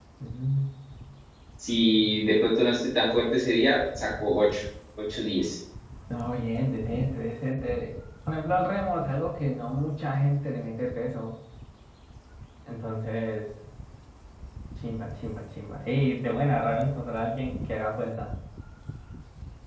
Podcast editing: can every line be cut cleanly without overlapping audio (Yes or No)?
Yes